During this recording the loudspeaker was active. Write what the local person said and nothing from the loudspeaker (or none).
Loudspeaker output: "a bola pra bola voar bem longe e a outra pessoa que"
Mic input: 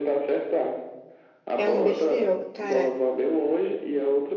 É um besterol. Cara,